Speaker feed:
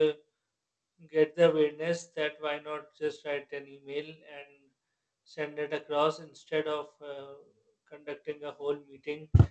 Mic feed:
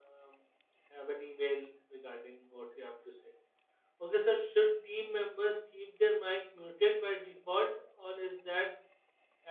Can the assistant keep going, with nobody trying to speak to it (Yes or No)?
No